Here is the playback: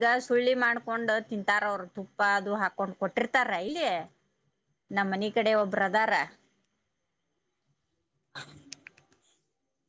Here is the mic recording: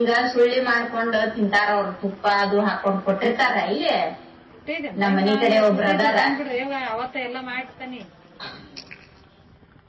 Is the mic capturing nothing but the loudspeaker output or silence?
No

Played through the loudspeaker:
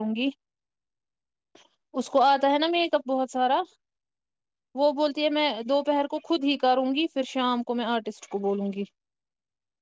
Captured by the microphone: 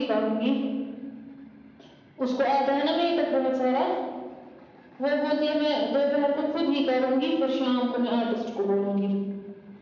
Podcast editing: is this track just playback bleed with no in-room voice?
Yes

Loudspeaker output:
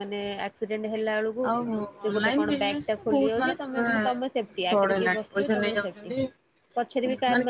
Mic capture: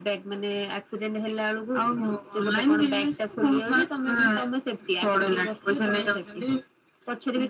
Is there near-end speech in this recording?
No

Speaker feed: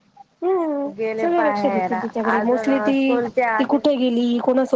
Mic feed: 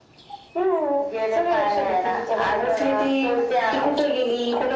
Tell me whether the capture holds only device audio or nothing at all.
Yes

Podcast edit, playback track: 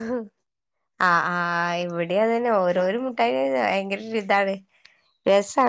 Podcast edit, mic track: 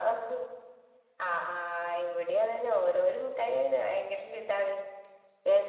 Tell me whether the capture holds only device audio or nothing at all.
Yes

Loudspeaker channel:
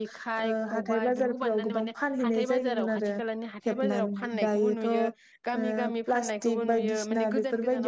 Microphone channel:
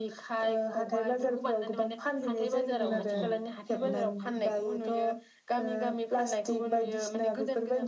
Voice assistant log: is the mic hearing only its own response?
No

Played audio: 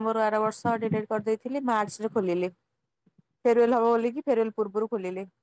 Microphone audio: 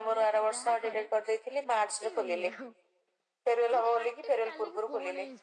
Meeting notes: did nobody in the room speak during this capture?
No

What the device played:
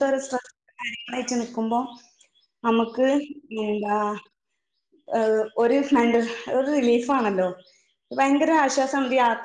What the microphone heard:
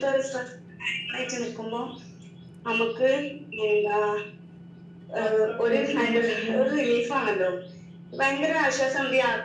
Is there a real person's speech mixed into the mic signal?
Yes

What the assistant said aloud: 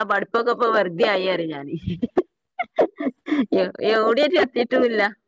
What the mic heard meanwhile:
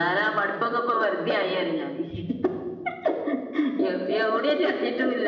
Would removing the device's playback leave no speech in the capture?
Yes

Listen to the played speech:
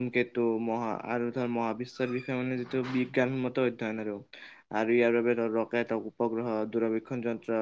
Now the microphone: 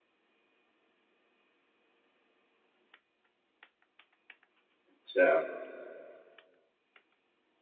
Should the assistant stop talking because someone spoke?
Yes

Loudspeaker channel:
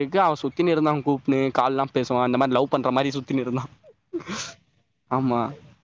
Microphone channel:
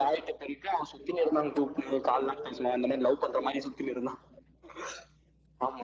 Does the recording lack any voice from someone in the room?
No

